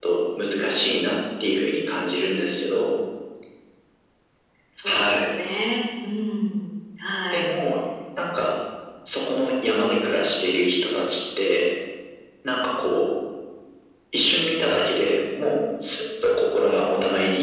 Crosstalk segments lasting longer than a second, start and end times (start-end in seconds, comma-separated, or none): none